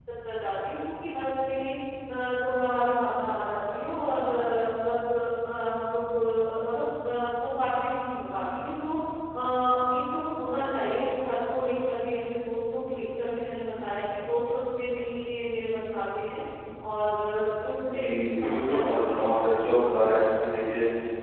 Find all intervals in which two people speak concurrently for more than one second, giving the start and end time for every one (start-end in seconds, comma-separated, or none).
17.8-19.4